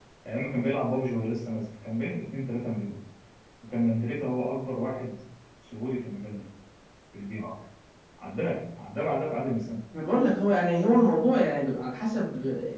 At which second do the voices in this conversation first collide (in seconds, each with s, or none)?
none